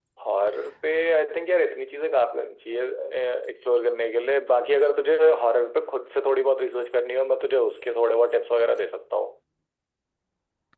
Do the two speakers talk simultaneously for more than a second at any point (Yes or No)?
No